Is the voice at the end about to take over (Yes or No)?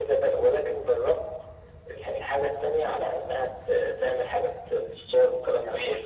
Yes